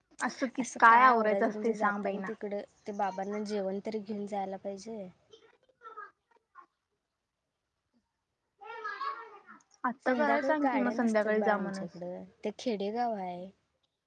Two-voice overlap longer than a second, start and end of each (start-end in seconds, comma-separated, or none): 0.6-2.3, 10.1-11.9